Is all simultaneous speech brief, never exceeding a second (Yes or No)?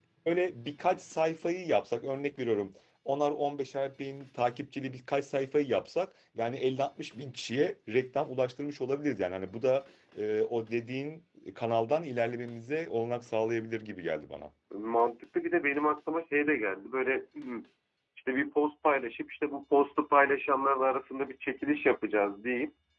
Yes